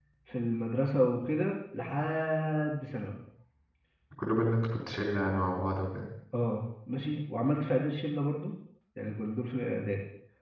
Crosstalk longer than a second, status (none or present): none